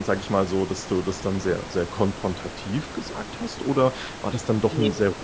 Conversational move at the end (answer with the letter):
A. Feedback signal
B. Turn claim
A